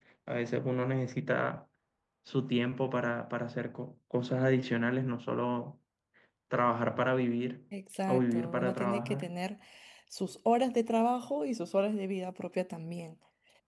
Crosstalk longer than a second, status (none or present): present